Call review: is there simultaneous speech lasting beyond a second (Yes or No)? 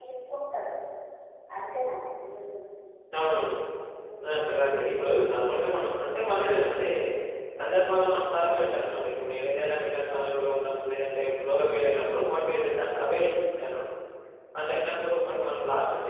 No